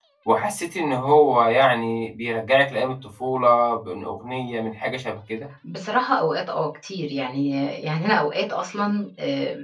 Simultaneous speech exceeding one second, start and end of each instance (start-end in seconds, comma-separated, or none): none